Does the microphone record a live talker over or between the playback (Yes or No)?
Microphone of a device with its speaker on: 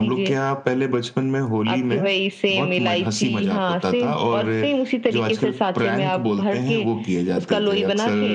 No